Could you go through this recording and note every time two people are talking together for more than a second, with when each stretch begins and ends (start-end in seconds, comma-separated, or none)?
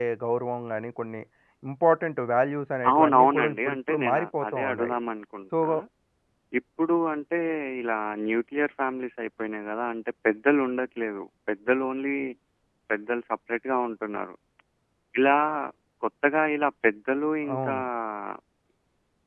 2.9-5.0